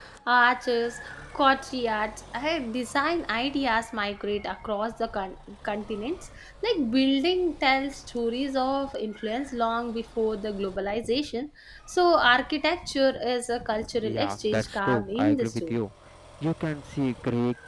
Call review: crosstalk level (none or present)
present